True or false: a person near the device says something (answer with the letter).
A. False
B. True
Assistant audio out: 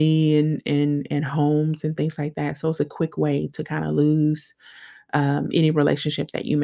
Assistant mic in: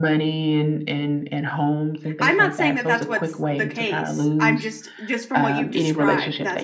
B